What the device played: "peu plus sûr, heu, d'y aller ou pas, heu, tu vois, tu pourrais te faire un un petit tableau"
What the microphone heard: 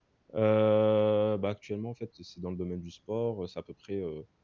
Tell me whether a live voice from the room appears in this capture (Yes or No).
Yes